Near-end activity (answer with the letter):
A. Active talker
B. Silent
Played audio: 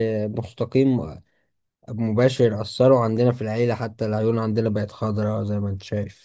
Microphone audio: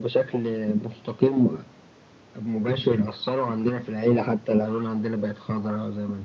B